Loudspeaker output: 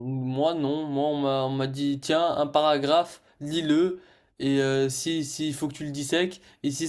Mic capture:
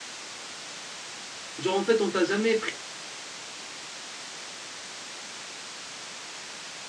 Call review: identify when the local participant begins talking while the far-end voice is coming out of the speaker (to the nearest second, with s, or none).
2 s